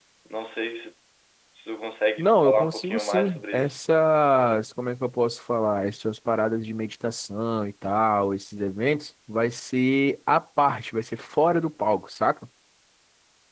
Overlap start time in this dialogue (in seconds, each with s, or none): 2.2 s